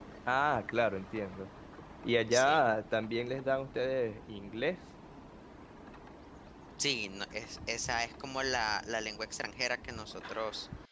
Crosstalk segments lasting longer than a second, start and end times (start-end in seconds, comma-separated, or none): none